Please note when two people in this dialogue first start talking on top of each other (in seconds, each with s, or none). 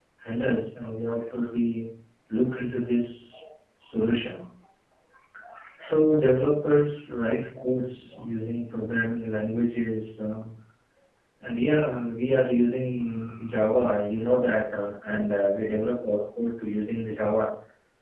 none